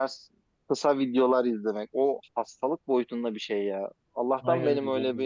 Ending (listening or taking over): listening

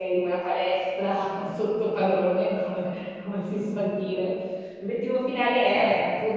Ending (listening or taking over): listening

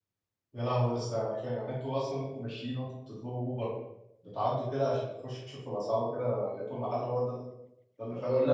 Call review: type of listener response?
taking over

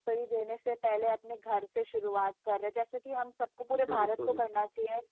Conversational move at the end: listening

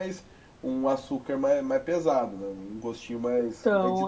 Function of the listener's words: taking over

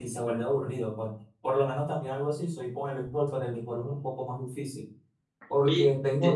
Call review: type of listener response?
taking over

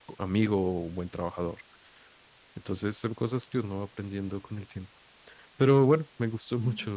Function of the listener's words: listening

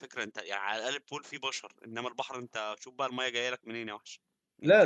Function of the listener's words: taking over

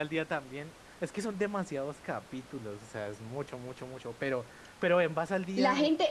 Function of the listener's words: taking over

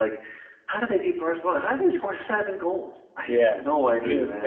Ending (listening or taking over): taking over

